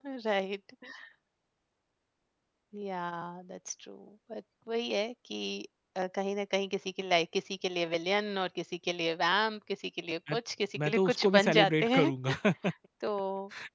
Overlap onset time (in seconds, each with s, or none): 10.8 s